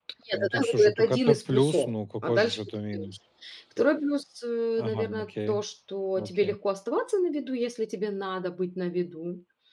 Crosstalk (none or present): present